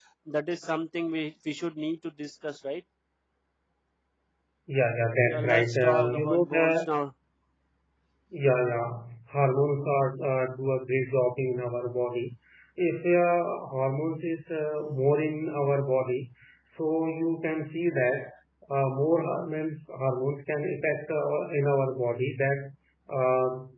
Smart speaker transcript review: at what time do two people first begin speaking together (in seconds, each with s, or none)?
5.2 s